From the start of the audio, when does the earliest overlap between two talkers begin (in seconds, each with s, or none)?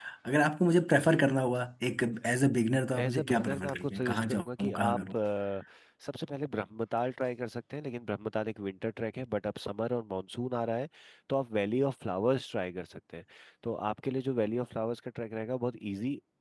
2.9 s